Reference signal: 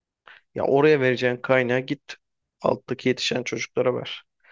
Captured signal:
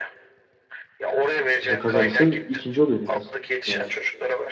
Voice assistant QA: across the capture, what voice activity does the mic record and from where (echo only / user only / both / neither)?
both